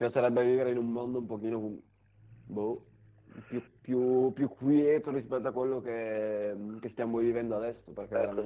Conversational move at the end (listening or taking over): taking over